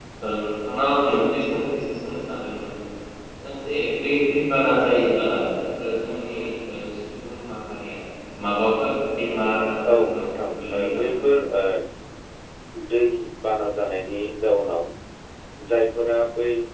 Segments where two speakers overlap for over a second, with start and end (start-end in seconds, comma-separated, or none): 9.9-11.1